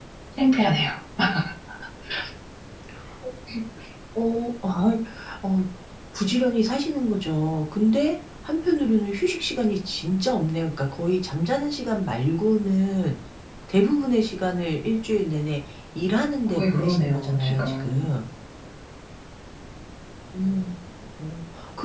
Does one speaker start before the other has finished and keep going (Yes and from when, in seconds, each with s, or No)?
Yes, from 16.5 s